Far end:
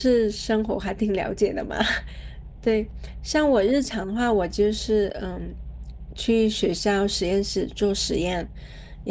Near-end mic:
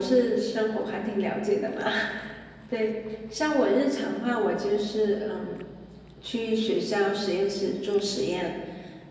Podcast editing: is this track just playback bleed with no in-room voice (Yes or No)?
Yes